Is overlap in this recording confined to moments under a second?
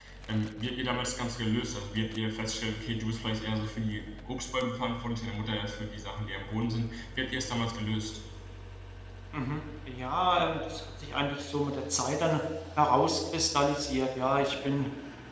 Yes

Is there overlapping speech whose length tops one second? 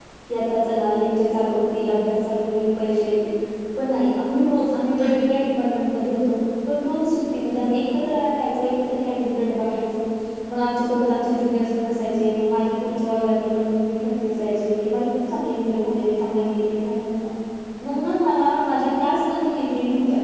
No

